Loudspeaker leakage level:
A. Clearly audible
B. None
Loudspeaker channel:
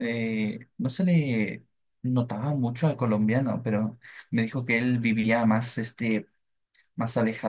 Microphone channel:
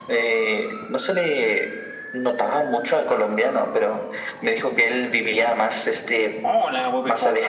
A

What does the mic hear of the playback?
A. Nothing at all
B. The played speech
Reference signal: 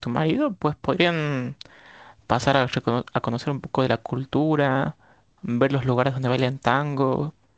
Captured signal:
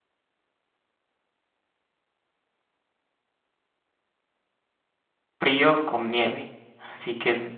A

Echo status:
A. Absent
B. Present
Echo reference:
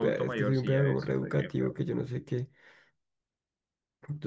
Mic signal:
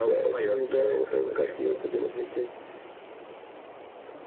B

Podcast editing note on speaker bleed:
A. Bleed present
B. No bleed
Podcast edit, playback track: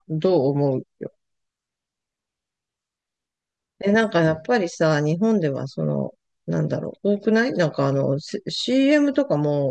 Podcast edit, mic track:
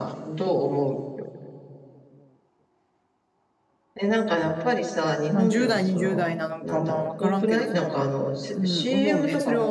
A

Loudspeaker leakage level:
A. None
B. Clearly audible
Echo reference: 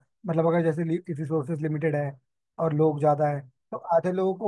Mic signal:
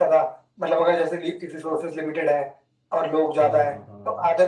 B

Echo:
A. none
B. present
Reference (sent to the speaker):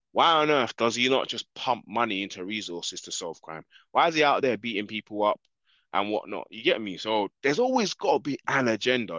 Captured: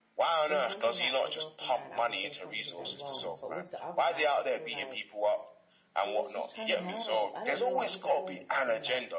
B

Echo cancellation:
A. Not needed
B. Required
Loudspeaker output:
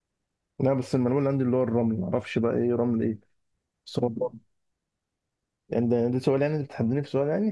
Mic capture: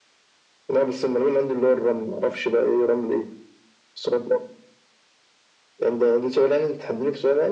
B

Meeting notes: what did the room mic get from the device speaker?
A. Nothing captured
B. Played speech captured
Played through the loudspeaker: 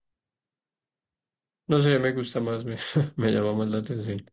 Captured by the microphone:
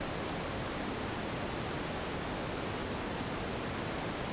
A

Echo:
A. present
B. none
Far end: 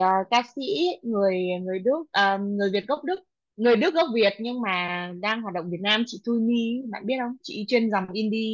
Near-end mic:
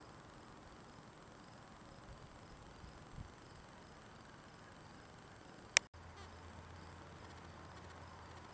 B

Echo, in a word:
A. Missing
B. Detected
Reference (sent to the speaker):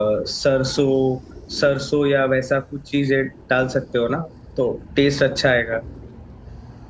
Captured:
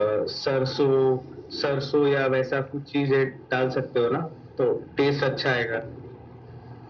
B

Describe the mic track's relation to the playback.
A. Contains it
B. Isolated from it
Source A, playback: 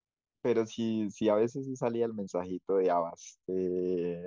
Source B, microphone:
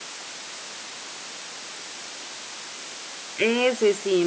B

